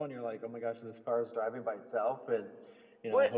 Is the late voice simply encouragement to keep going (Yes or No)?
No